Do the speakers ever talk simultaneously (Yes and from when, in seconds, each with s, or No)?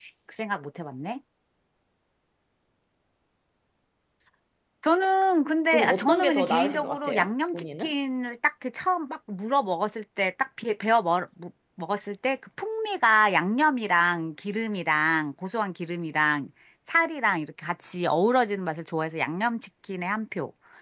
Yes, from 5.7 s